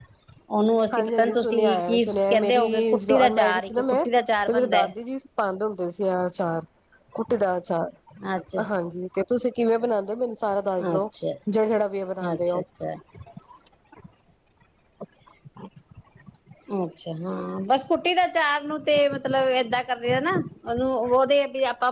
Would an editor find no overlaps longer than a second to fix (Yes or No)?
No